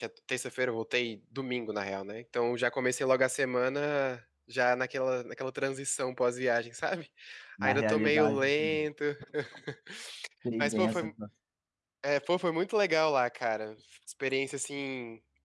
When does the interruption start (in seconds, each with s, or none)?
7.6 s